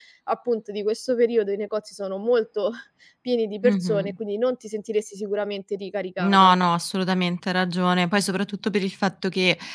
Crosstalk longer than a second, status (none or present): none